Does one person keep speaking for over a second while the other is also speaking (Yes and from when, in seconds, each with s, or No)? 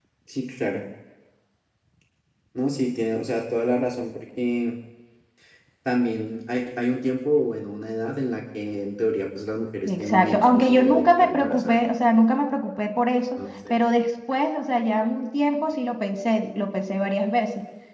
Yes, from 9.8 s